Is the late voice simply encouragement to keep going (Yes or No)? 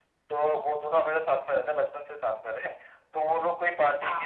Yes